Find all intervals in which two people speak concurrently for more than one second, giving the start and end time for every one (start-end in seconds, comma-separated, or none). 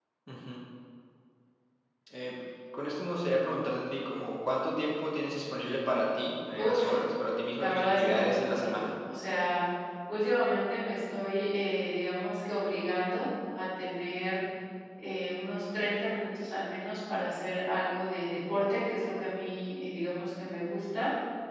7.6-8.9